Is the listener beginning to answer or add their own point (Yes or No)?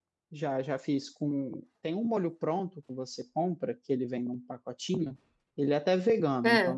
No